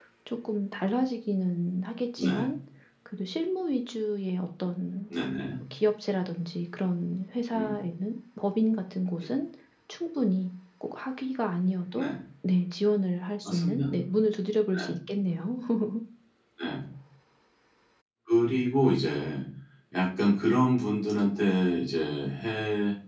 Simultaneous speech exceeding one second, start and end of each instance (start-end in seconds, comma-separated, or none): none